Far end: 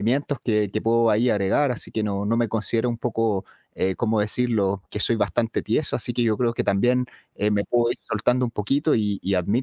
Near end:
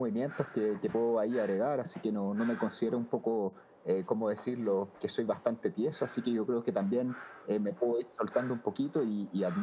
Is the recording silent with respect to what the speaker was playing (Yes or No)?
No